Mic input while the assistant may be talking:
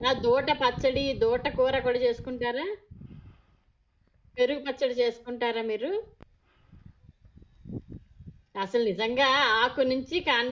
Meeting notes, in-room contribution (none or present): present